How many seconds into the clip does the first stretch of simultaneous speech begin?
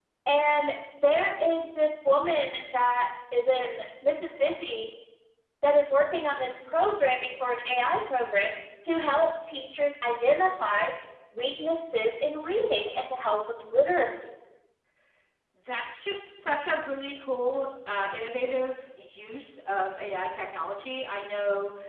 none

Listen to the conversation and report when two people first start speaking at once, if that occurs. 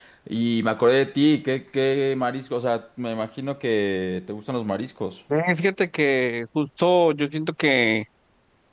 none

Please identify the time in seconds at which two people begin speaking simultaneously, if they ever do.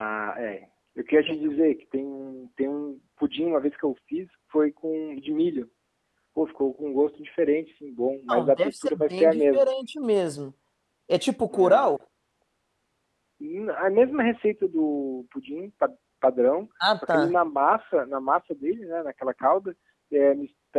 8.3 s

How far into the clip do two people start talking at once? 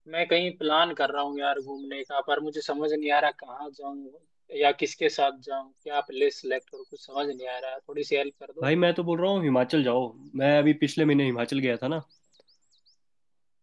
none

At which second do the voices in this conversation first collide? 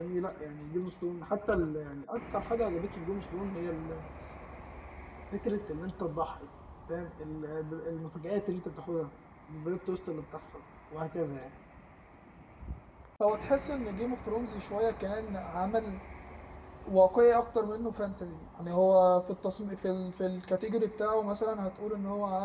none

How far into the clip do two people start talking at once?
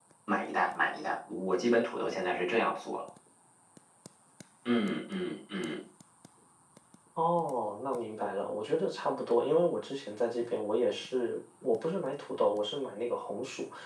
none

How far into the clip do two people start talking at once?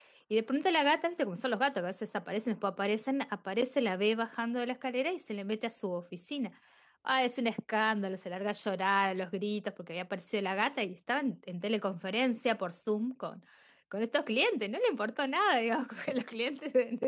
none

